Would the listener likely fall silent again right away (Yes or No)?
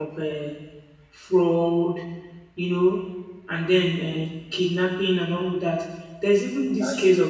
Yes